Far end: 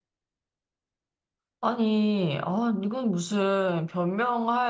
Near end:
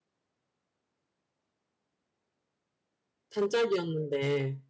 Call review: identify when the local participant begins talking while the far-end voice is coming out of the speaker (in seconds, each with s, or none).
3.3 s